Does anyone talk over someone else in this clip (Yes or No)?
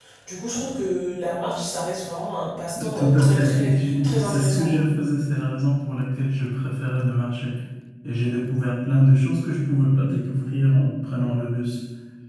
Yes